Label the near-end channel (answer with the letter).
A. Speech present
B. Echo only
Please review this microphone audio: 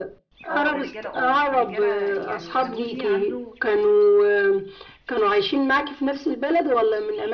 A